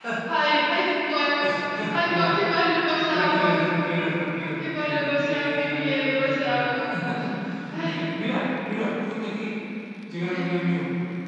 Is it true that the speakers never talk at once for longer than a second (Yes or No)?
No